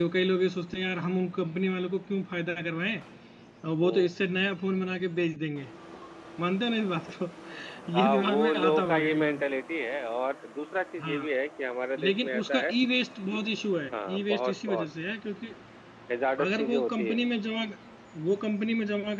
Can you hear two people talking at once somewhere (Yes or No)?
Yes